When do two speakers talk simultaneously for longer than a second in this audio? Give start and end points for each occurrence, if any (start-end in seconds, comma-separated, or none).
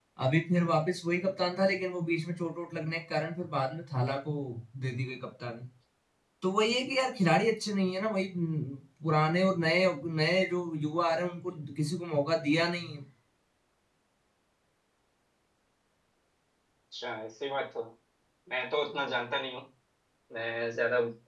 none